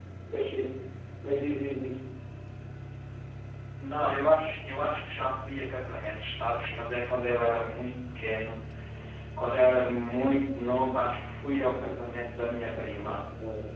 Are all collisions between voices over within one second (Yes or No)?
Yes